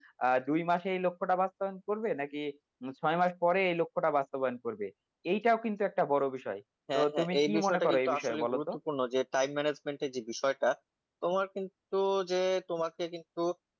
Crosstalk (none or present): present